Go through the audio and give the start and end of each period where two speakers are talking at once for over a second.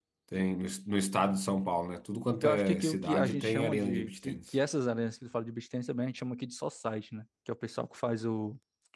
2.4-4.4

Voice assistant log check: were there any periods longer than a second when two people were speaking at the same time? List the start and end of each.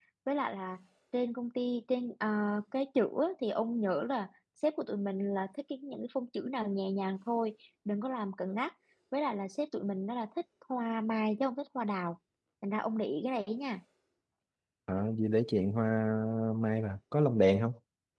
none

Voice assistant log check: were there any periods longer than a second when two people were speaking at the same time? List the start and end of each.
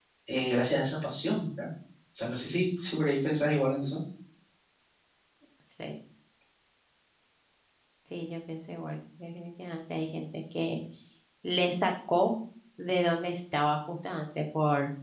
none

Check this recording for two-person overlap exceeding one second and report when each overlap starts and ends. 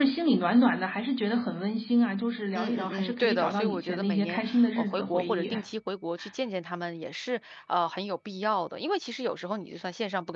2.5-5.5

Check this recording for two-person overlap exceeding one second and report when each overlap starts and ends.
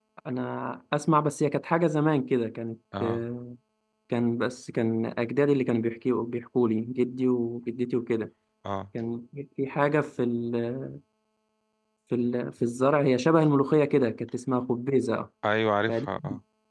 none

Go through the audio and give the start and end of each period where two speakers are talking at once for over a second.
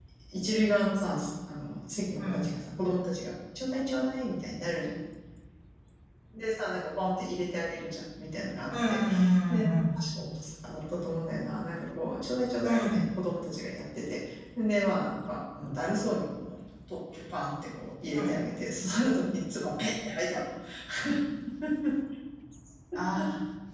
none

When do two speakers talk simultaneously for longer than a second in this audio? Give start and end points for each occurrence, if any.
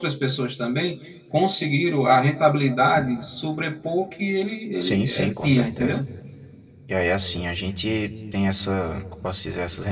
4.8-6.0

